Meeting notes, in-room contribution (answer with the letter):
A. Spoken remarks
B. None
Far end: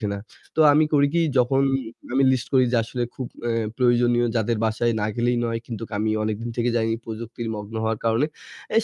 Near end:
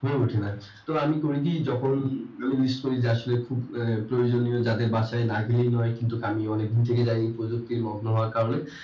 B